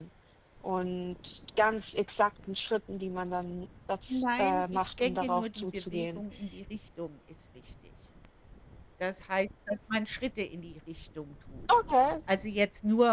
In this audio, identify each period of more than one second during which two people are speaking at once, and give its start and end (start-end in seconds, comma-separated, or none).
4.1-6.2